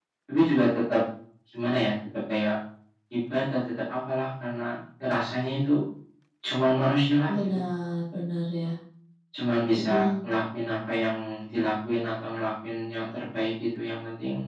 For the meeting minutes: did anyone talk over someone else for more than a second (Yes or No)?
No